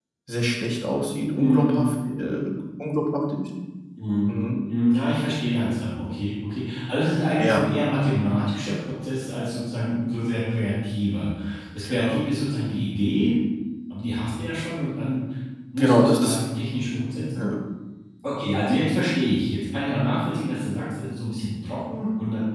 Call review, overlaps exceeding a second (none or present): none